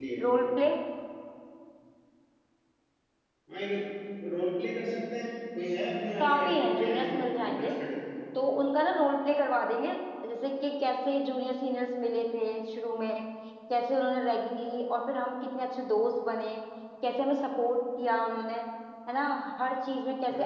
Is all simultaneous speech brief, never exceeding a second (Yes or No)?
No